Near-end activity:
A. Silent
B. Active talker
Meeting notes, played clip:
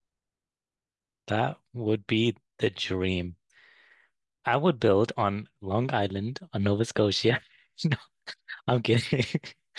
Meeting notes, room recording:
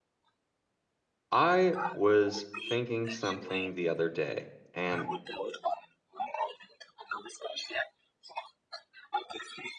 B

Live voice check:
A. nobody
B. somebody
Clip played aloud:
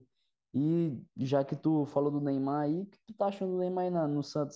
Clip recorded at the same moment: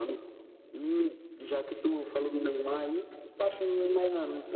A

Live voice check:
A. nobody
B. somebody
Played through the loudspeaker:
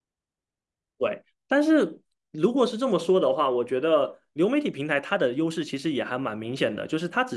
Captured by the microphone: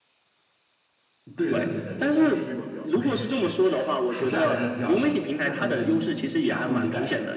B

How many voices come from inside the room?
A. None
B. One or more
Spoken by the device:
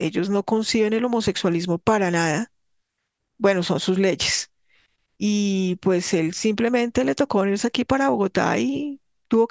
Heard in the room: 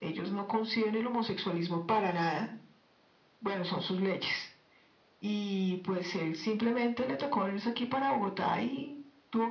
A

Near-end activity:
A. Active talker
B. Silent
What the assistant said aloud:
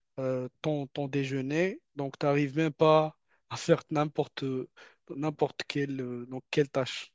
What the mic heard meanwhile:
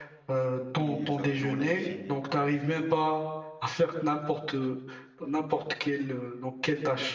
A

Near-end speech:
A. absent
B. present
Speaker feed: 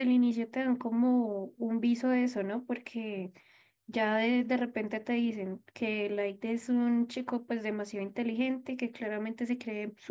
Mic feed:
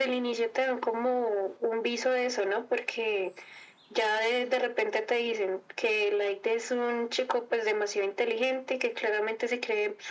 A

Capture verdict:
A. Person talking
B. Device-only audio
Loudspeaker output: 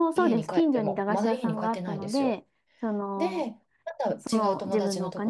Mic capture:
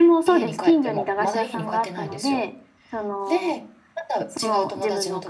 B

